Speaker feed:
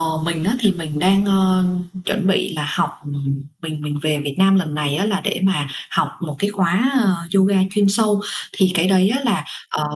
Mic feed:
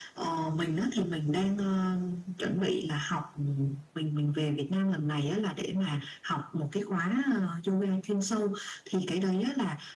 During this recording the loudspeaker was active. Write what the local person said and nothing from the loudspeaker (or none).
none